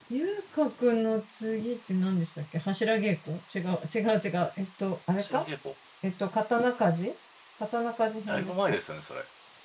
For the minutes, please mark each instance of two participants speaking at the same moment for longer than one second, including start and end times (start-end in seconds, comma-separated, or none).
none